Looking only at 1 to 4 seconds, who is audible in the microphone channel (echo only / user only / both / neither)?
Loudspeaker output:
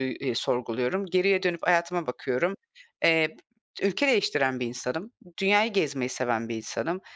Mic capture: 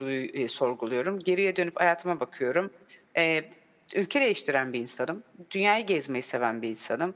echo only